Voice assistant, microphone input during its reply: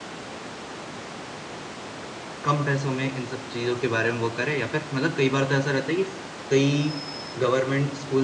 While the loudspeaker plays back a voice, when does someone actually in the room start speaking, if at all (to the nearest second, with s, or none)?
2 s